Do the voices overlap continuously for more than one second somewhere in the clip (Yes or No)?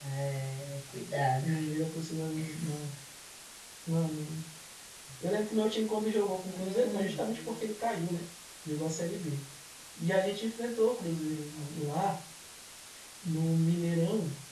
Yes